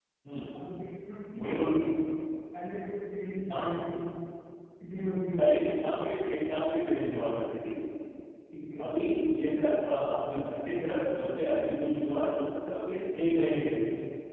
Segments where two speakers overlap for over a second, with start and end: none

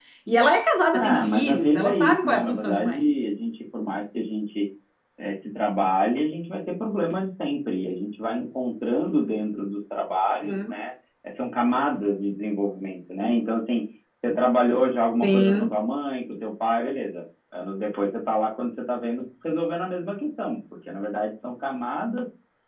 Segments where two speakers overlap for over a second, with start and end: 0.9-3.0

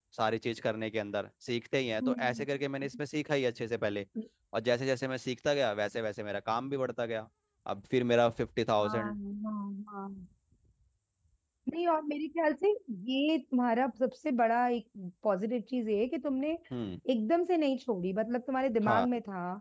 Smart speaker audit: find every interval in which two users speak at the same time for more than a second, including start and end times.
none

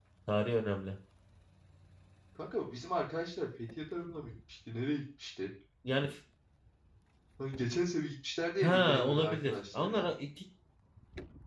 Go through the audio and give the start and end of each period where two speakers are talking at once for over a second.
8.6-10.1

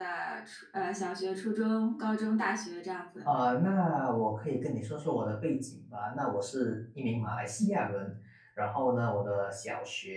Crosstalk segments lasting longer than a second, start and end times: none

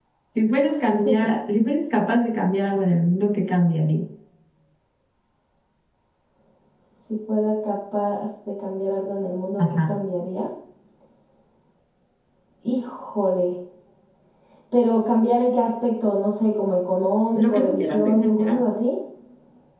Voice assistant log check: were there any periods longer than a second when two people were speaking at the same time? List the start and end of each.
17.4-18.6

